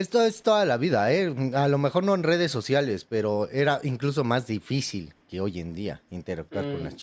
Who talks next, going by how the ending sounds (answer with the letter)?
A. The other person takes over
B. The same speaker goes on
A